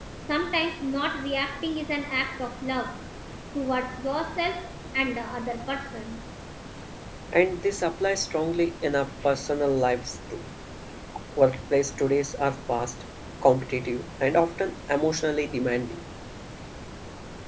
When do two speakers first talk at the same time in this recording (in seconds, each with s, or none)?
none